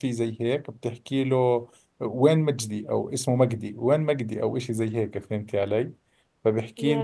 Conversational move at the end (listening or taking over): listening